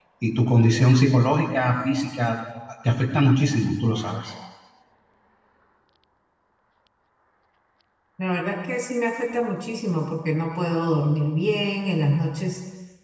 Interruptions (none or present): none